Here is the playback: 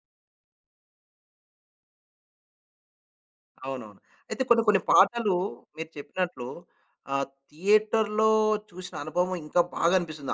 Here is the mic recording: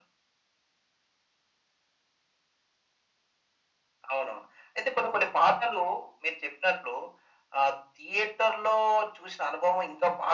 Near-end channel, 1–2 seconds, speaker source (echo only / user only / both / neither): neither